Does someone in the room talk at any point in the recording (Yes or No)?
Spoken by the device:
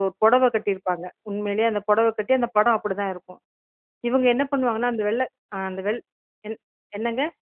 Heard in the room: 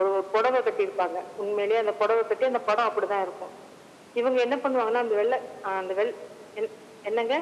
No